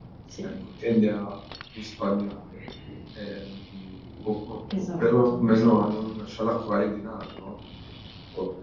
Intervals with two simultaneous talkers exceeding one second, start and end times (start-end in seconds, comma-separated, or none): 4.8-6.1